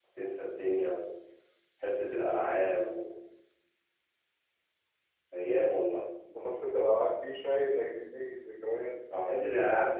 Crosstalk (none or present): none